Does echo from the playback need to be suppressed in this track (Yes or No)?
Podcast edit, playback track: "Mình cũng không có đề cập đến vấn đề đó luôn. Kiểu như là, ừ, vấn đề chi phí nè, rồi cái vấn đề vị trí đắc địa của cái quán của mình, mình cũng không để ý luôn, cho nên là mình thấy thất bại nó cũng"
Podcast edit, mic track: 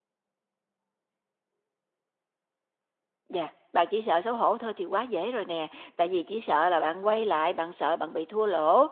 No